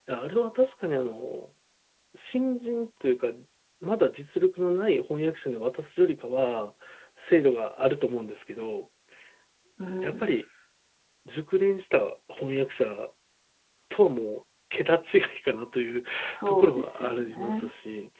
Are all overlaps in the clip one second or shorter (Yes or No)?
No